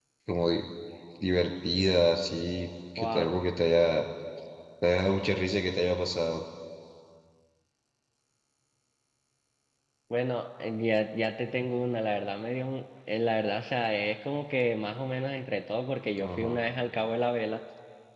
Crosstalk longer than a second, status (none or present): none